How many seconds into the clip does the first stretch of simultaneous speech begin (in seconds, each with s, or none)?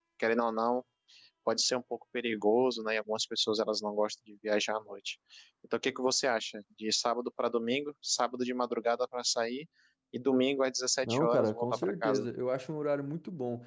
11.0 s